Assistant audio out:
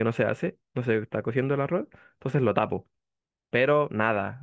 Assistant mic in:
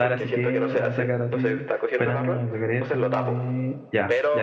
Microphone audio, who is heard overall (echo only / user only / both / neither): both